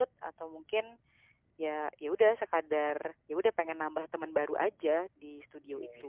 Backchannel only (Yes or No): No